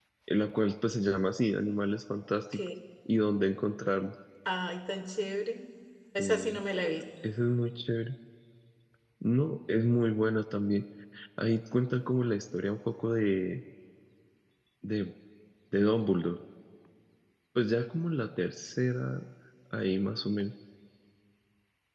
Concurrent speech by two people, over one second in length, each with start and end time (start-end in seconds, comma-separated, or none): none